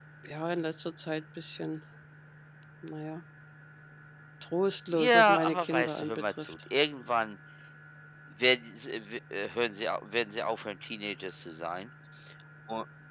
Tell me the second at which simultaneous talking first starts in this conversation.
4.9 s

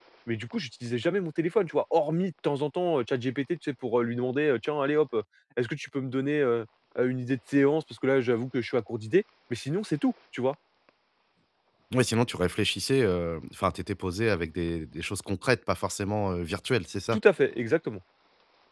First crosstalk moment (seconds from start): none

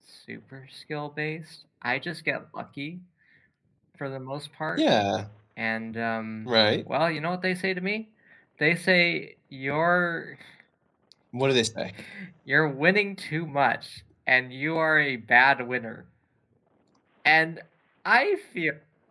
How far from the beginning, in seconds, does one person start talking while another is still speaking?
none

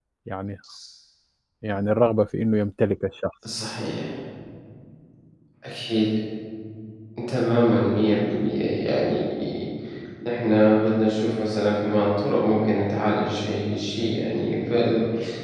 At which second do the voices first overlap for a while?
none

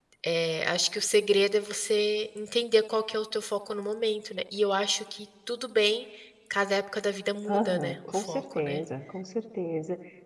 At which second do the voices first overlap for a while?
7.5 s

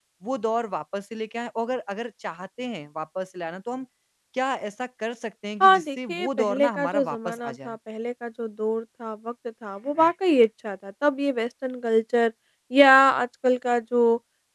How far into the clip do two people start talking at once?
5.6 s

